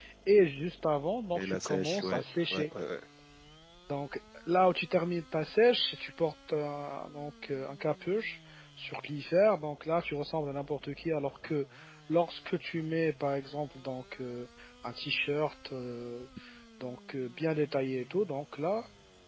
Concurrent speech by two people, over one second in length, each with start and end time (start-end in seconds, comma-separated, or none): 1.3-2.7